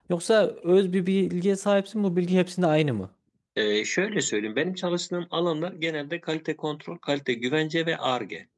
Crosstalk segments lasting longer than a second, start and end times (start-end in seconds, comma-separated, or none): none